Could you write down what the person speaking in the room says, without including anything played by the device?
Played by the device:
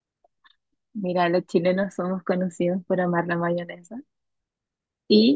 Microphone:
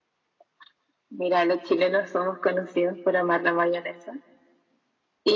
none

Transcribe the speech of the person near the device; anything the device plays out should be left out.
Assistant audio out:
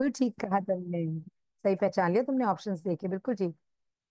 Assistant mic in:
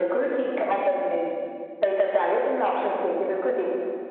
none

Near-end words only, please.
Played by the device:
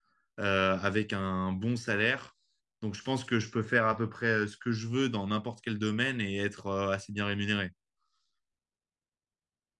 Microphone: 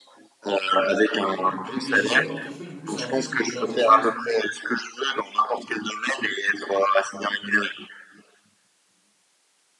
Ah, ok. Mais gestion de portefeuille, du coup, c'est un peu ce que j'ai fait l'intersemestre, non?

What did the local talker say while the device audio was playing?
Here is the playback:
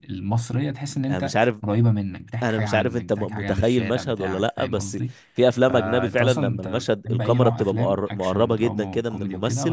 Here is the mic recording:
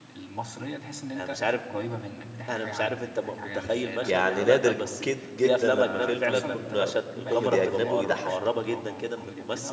يعني نادر جد جدا لما فيلم يكون كوميدي اجنبي ويضحكني

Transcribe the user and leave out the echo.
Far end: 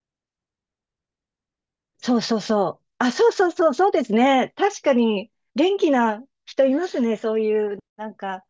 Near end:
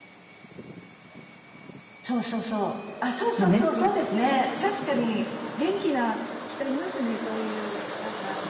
もう全然。

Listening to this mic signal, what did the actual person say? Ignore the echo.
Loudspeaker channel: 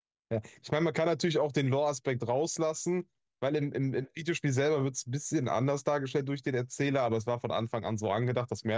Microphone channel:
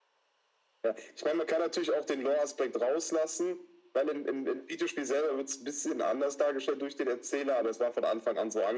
none

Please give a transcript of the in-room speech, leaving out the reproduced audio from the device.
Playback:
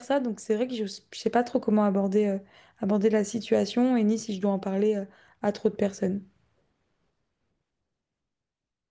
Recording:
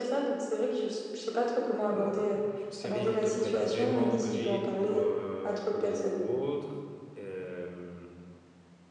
euh, j'en sais rien, ils te prennent vraiment en grippe ou, euh, ou autre. Euh,

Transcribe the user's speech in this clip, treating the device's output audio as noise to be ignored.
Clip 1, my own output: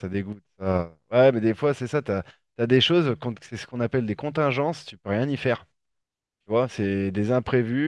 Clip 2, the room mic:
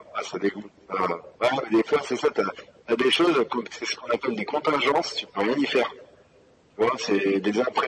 none

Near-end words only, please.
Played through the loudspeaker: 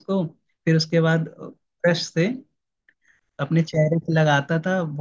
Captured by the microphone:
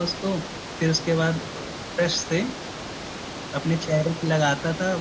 none

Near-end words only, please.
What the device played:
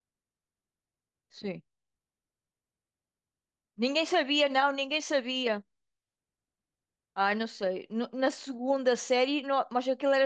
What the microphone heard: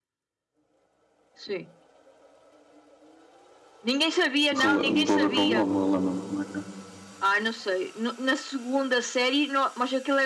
Rele- Não estou a ver pelo nome, relembro-me como é que é.

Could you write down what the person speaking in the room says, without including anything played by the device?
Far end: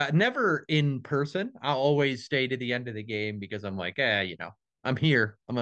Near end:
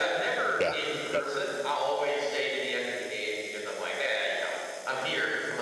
Yeah. Yeah.

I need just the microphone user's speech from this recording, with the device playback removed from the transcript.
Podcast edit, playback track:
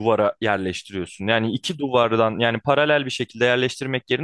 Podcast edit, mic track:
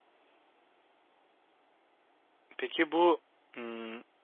Peki bu hmm,

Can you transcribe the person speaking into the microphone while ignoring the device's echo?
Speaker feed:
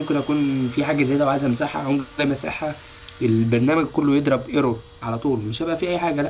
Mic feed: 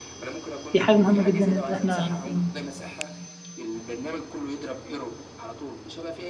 دي حاجة مهمة جدا إن إحنا نكون

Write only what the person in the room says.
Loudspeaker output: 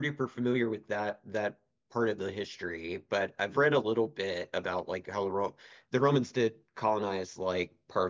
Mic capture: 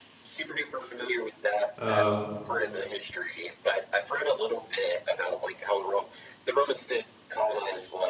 Uh,

